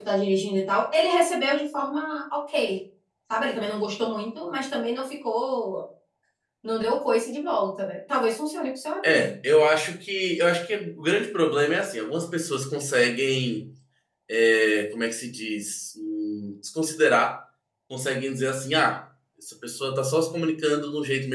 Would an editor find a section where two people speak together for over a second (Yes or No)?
No